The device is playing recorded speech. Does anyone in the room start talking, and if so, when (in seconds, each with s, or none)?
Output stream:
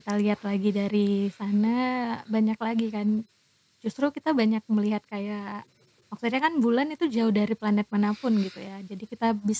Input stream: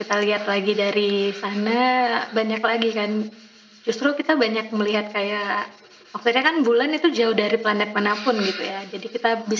none